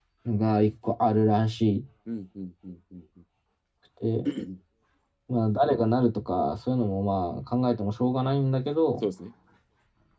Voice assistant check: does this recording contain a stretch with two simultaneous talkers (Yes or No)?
No